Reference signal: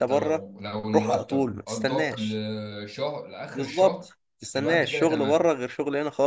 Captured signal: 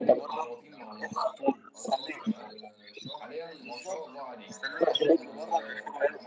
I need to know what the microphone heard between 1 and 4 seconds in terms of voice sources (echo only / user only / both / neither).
both